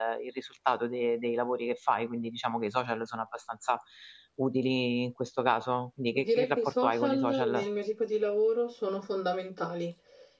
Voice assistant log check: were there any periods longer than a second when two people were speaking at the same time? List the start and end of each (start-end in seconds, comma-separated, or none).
6.2-7.6